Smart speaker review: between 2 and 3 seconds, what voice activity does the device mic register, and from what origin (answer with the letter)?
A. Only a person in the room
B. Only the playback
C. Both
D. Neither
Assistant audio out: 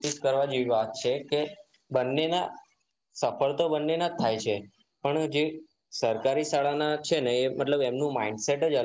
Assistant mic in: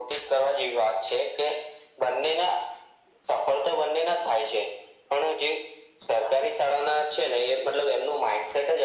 B